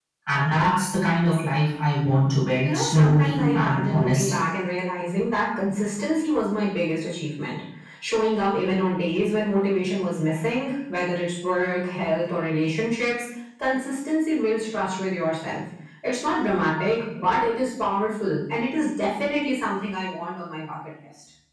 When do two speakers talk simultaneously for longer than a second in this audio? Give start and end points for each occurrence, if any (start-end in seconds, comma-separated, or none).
2.6-4.4